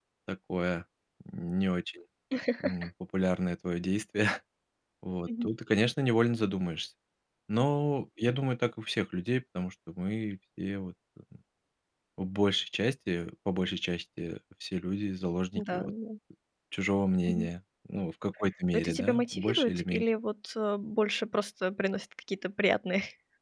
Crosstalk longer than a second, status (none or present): present